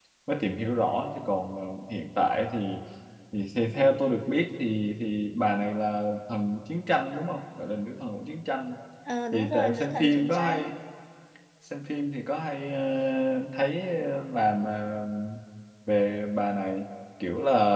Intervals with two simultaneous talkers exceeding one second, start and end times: 9.3-10.7

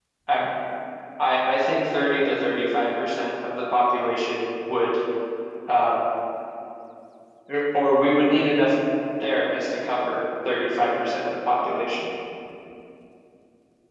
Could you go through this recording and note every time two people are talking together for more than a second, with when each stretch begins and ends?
none

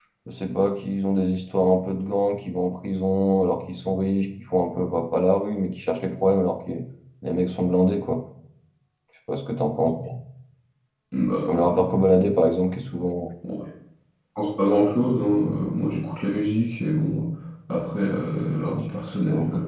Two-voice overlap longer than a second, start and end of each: none

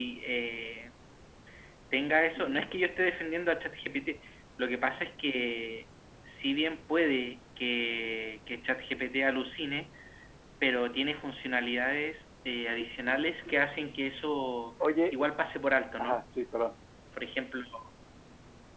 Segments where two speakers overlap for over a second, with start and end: none

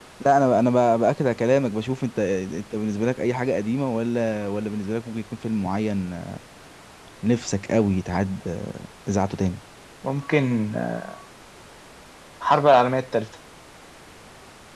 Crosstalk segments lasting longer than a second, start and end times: none

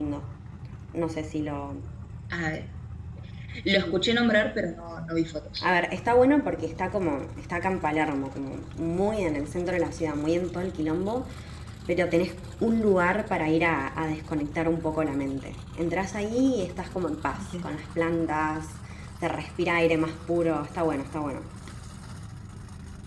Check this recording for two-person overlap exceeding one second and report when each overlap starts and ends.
none

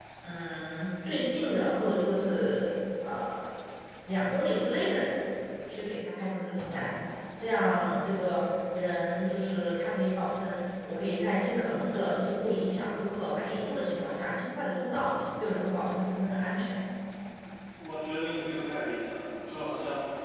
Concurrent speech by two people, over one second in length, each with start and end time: none

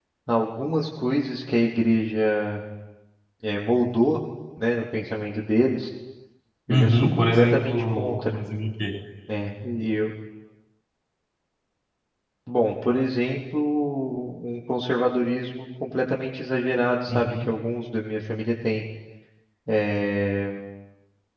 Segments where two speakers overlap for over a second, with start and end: 6.7-8.4

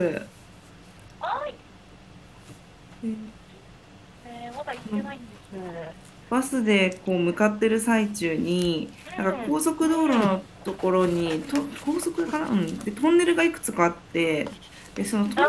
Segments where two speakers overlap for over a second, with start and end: none

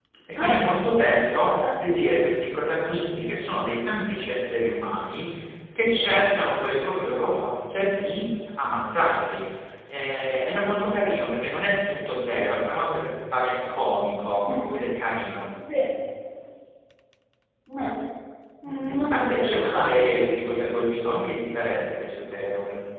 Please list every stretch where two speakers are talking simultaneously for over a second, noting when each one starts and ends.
18.7-20.7

